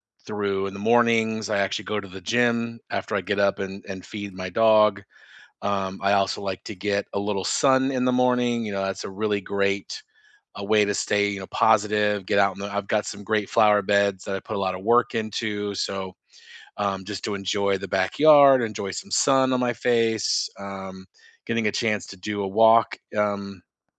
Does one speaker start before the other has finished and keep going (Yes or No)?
No